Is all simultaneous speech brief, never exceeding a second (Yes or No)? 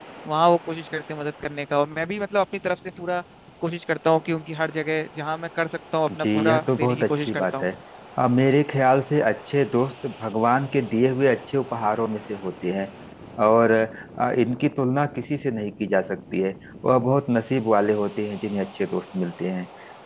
No